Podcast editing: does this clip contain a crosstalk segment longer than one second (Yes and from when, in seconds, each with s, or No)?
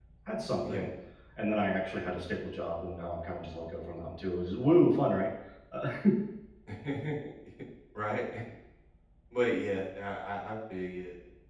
No